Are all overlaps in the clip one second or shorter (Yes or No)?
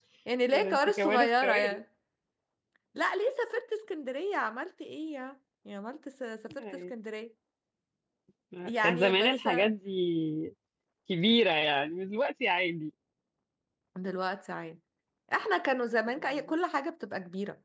No